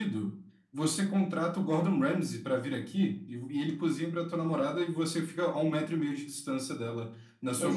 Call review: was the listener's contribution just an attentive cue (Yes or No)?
No